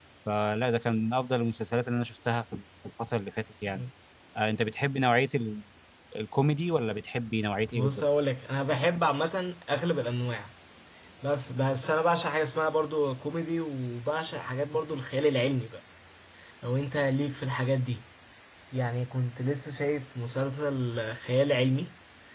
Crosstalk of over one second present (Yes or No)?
No